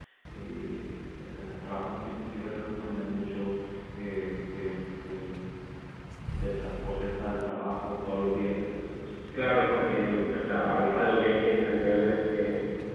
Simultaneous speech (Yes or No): Yes